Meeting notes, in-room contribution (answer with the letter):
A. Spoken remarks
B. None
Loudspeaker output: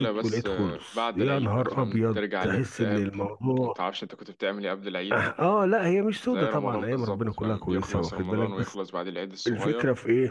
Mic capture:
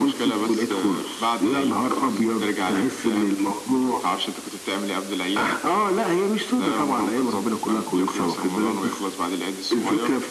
B